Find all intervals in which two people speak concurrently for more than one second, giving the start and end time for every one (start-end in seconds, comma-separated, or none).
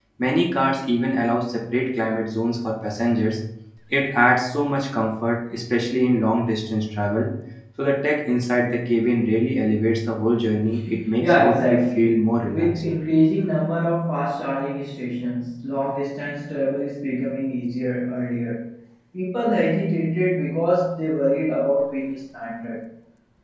11.2-12.8